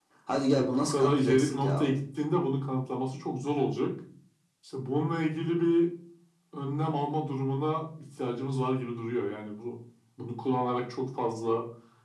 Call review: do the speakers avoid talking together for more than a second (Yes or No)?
No